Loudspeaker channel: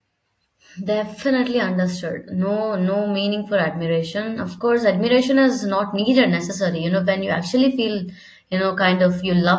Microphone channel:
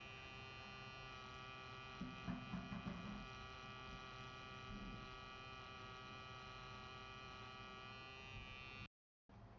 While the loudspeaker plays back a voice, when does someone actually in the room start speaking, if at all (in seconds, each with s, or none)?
none